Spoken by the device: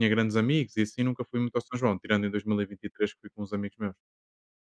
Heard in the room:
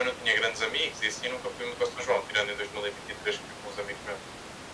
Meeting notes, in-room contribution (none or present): none